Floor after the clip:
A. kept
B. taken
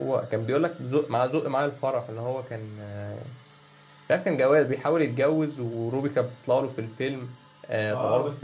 B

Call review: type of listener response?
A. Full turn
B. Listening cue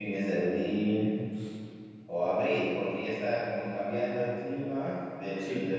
B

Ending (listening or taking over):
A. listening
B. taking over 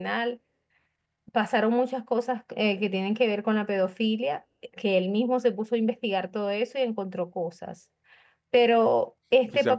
B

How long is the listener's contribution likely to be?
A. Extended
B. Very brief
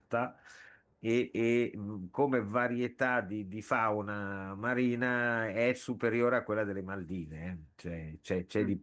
B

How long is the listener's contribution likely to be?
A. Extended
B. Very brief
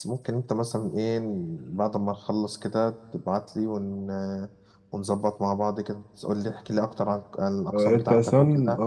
A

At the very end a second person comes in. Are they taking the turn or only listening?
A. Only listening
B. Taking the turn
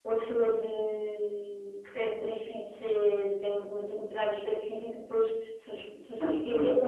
A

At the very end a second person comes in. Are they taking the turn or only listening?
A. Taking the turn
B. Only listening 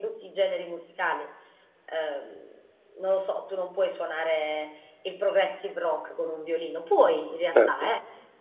B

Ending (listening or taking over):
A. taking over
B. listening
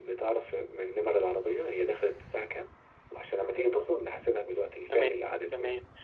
A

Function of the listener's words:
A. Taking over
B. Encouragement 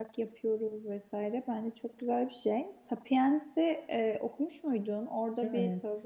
B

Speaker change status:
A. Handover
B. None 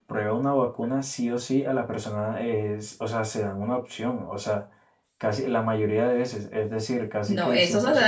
A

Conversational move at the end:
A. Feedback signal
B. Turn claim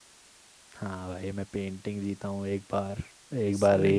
A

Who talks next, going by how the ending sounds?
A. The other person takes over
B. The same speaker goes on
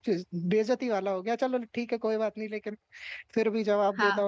A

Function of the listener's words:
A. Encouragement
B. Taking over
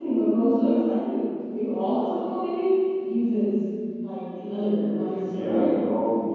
B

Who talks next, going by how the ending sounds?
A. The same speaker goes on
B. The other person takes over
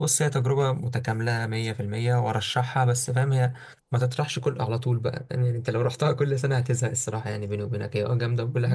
B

